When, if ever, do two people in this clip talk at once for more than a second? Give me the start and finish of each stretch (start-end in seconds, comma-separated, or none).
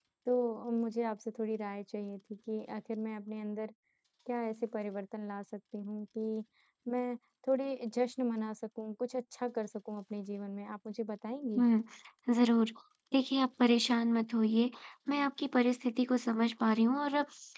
none